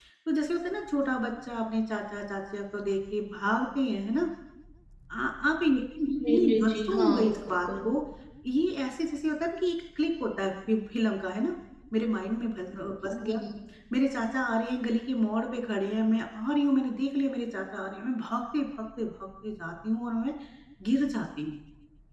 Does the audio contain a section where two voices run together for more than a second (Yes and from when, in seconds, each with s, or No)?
Yes, from 6.2 s